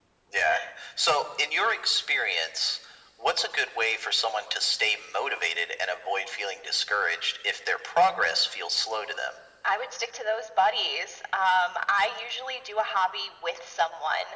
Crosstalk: none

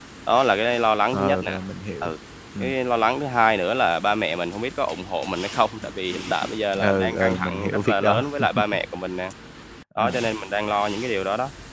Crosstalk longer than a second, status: present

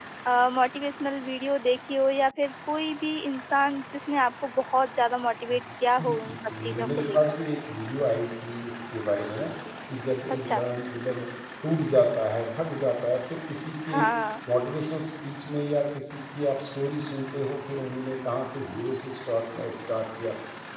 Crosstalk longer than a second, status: present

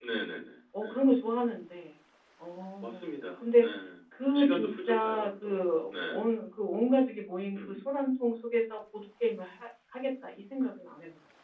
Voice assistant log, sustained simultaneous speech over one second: present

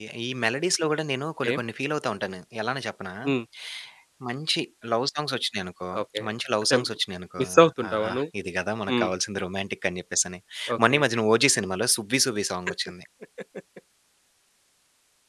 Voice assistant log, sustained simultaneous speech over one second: none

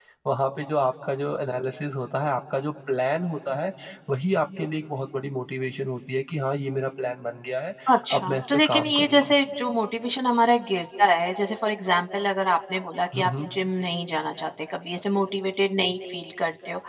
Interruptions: present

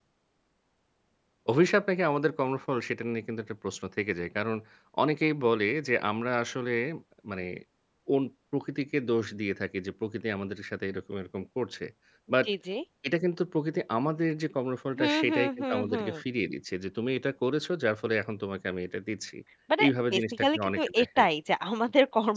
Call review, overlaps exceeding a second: present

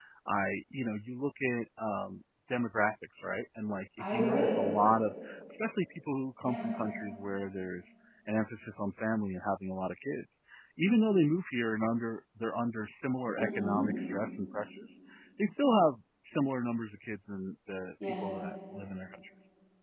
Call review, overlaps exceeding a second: none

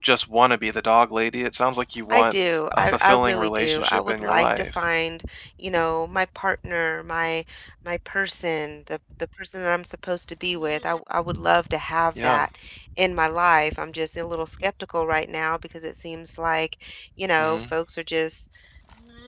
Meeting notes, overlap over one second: present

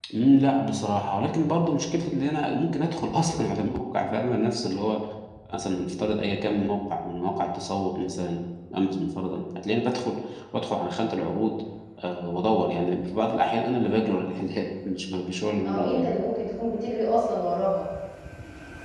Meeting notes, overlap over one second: none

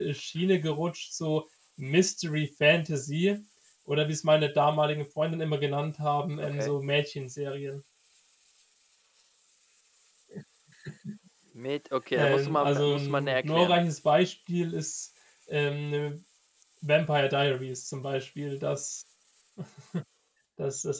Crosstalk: present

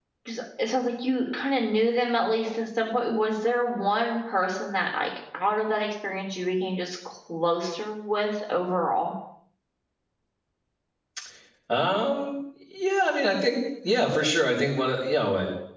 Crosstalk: none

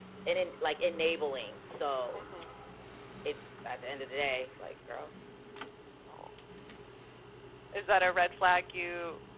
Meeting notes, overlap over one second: none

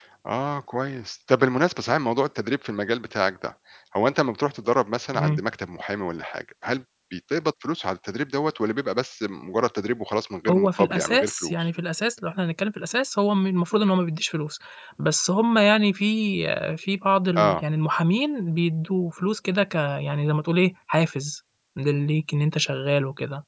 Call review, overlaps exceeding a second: present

